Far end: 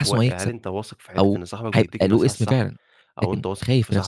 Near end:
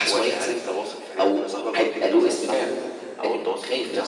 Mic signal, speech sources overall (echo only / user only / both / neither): echo only